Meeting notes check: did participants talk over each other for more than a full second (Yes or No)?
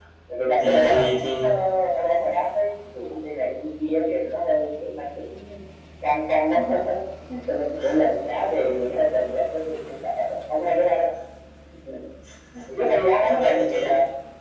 Yes